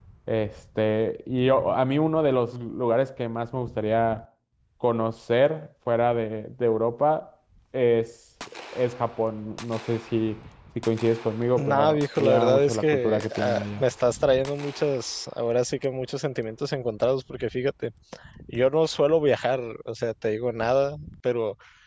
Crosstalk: present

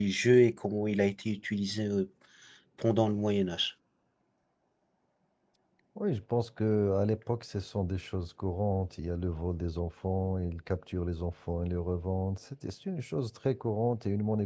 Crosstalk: none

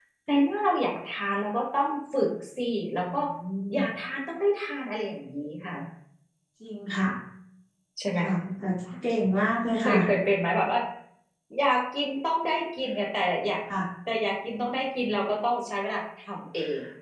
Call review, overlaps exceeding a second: none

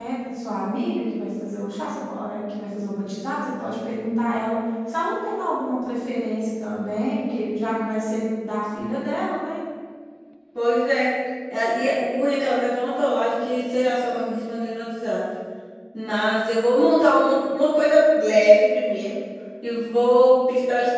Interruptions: none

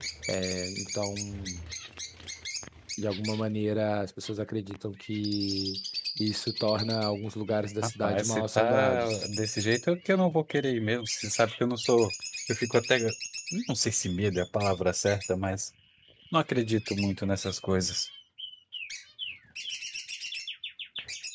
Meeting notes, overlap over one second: present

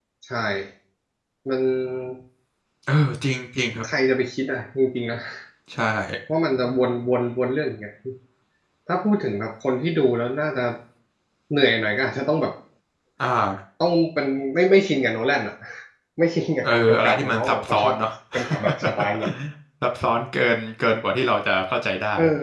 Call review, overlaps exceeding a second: present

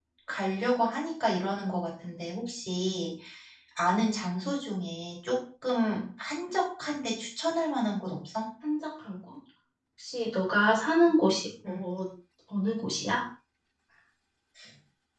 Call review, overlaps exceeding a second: none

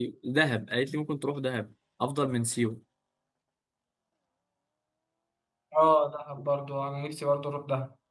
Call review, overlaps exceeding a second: none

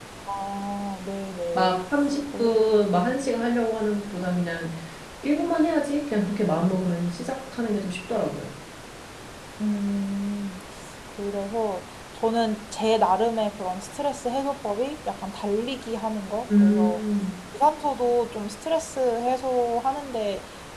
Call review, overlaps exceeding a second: none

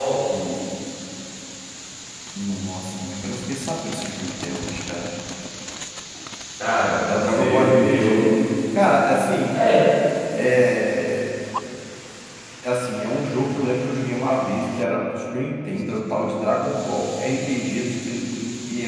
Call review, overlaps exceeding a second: present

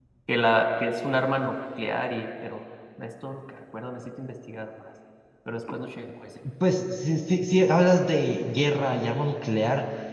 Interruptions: none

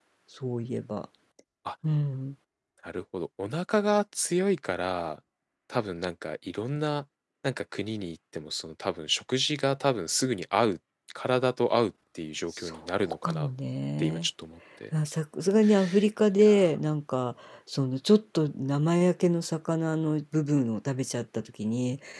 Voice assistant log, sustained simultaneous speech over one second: none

